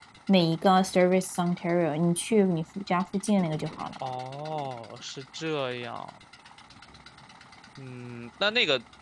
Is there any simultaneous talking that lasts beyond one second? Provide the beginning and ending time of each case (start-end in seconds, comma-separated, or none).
none